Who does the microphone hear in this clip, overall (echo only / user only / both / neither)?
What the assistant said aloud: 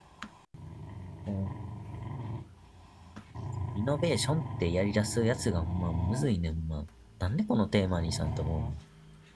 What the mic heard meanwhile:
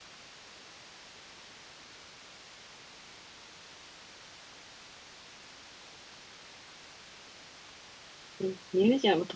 user only